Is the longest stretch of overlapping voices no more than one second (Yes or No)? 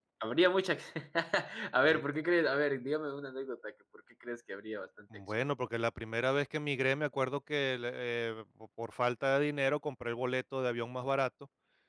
Yes